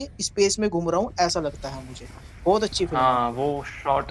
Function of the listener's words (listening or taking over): taking over